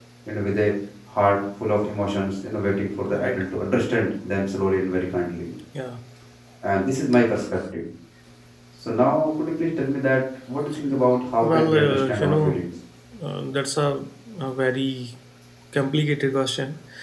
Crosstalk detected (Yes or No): Yes